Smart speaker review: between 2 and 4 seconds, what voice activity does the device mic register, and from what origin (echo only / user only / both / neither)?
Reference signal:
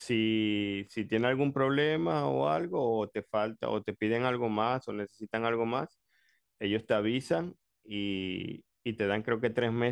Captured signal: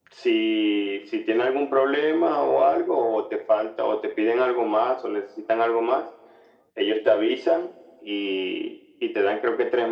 echo only